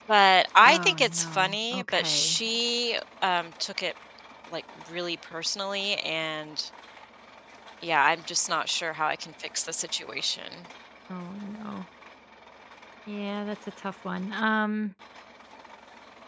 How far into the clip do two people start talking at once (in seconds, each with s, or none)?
0.6 s